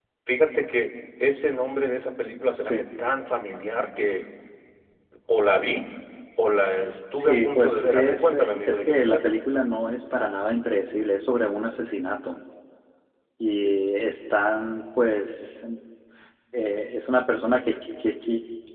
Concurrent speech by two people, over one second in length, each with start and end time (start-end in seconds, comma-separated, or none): 7.1-9.3